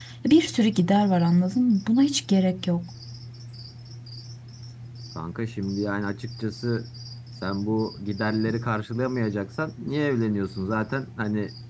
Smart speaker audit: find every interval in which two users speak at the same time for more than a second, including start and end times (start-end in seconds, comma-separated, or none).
none